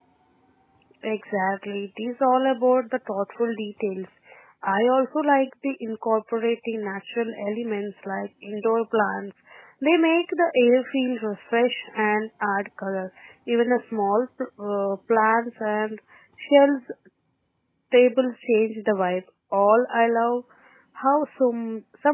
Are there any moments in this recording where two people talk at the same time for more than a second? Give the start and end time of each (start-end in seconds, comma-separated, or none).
none